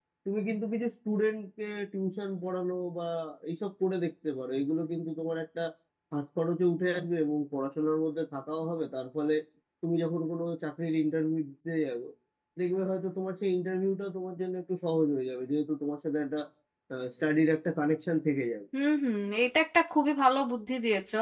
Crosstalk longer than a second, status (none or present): none